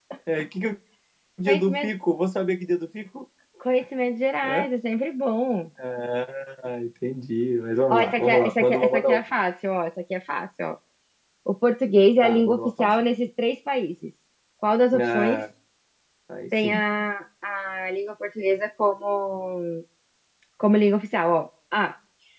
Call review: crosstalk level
present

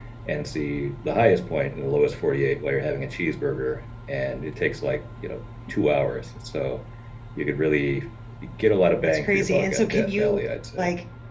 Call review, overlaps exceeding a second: present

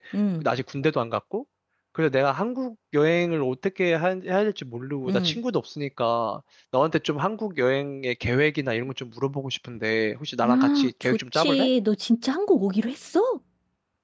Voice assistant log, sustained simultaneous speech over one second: present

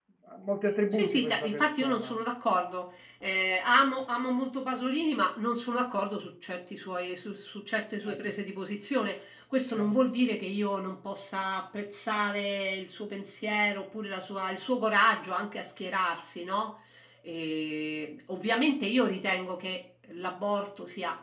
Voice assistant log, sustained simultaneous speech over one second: present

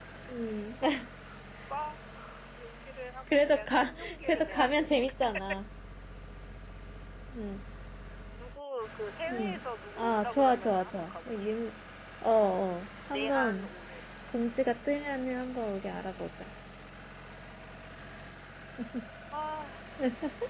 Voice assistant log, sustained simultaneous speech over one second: present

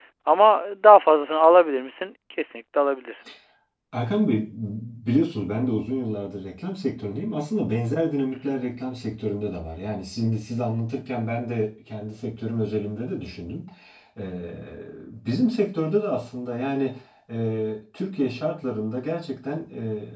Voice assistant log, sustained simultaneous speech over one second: none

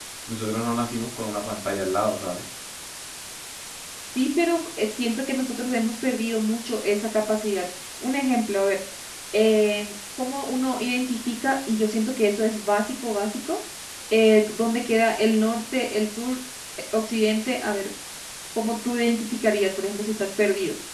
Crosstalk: none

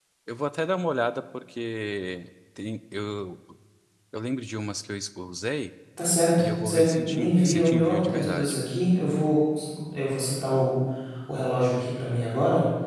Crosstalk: present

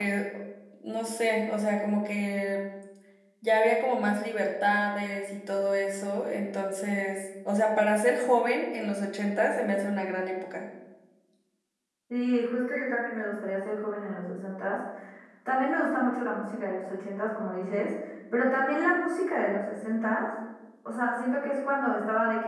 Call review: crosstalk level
none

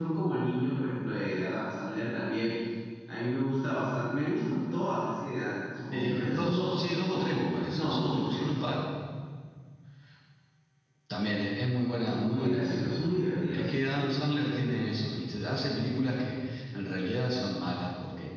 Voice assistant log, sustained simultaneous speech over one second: present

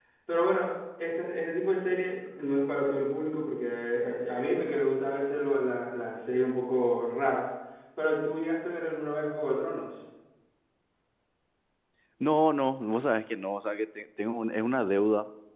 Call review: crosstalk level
none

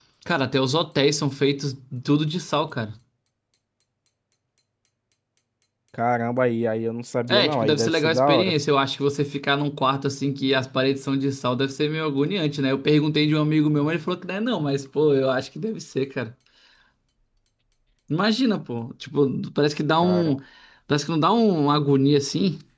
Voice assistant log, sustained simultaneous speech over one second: present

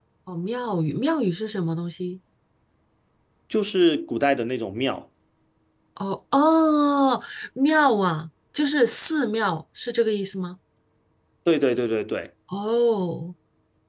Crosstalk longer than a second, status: none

